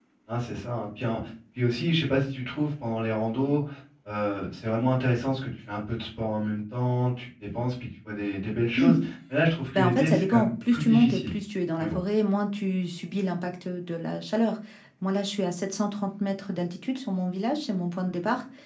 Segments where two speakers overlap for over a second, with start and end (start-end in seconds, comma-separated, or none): 9.7-11.3